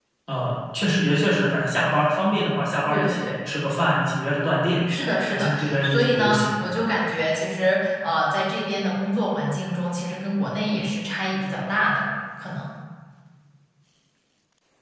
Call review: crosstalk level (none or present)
present